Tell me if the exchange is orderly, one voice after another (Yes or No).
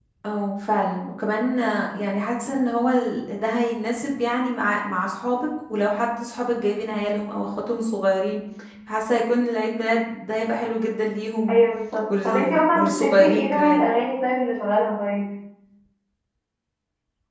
No